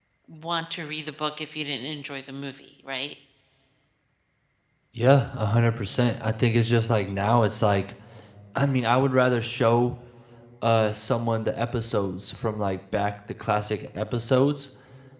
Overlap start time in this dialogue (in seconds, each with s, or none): none